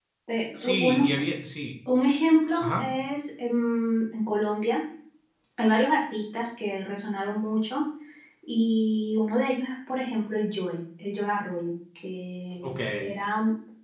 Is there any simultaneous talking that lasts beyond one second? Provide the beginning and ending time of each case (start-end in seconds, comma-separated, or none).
none